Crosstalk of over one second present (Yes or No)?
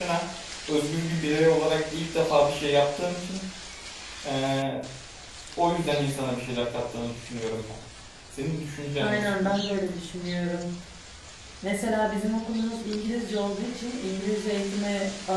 No